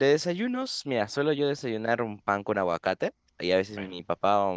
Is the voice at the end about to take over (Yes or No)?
No